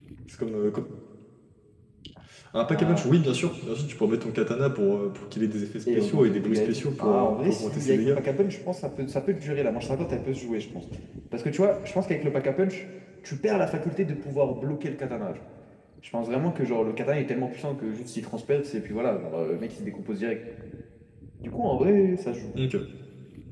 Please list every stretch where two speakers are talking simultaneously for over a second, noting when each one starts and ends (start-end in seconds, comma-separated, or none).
5.9-8.2